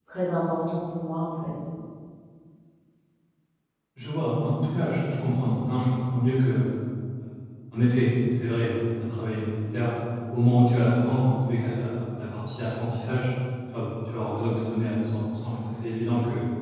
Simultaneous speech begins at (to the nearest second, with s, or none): none